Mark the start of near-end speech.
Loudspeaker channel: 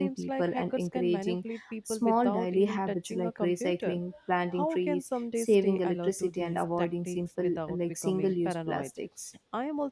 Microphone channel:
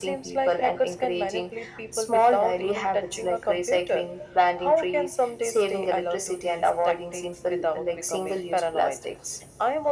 none

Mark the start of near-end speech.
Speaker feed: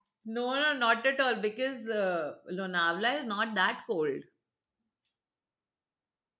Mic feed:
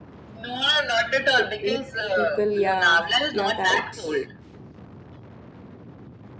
1.4 s

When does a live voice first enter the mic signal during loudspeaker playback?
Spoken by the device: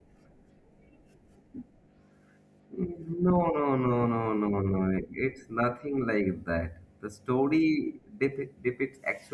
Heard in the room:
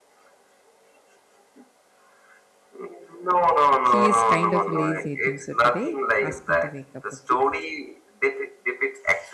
3.8 s

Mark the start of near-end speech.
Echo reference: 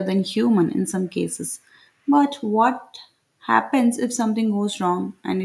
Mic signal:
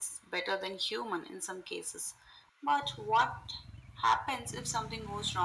none

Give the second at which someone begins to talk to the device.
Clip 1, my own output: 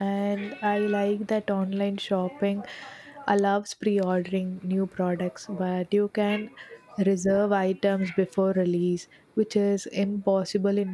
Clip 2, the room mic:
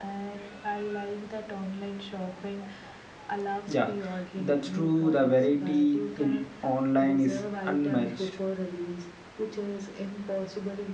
3.6 s

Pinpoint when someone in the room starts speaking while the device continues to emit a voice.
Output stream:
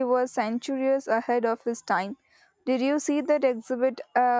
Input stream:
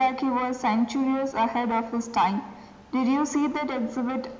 none

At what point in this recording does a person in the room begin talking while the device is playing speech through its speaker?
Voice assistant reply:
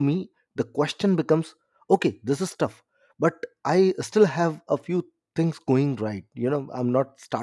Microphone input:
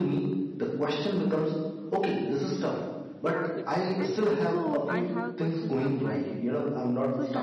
3.2 s

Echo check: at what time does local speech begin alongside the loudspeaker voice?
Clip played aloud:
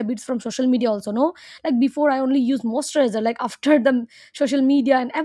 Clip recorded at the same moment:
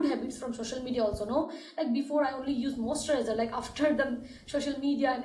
none

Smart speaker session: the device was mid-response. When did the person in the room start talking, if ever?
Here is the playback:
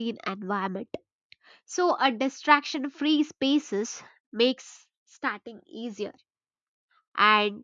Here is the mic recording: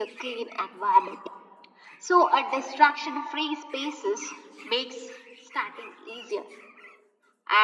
none

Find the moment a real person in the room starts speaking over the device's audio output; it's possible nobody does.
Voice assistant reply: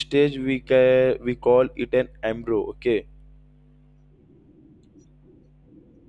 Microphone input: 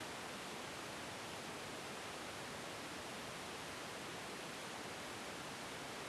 none

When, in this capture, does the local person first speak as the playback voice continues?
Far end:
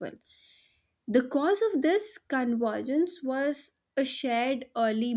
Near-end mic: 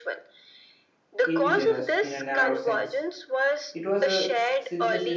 1.2 s

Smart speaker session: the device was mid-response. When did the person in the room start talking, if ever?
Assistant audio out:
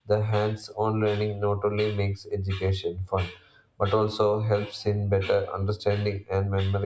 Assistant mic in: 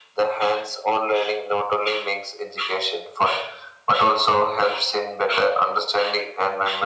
none

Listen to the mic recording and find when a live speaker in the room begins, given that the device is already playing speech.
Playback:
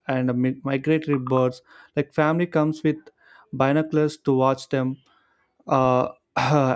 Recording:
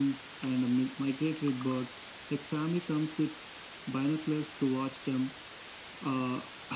none

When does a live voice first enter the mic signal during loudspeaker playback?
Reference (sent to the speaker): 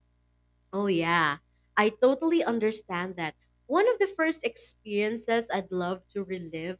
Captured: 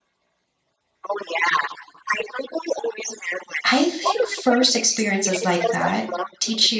3.6 s

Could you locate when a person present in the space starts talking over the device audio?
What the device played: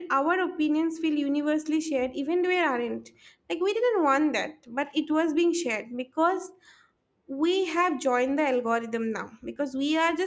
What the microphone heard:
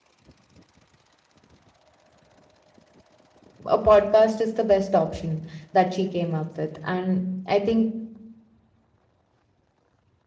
3.7 s

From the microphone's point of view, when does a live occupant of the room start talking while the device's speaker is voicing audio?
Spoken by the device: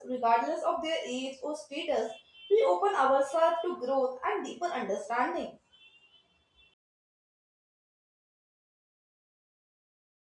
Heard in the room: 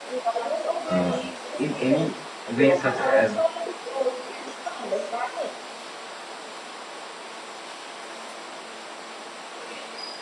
0.9 s

